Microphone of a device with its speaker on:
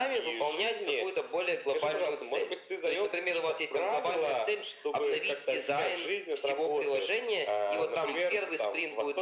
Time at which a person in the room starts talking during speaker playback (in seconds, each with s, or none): none